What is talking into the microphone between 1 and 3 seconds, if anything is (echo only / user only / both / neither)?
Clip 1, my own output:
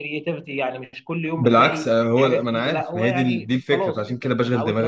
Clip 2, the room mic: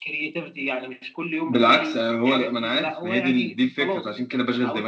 echo only